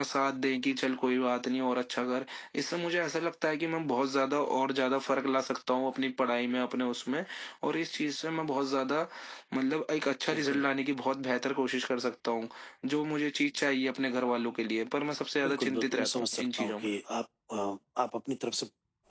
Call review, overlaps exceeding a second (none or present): present